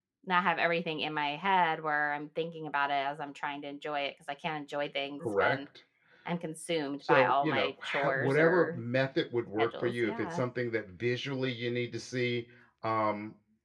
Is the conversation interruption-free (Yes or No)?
No